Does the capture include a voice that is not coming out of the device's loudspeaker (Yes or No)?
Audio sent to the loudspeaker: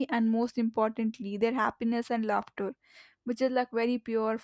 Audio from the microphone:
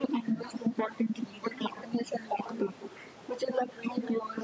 No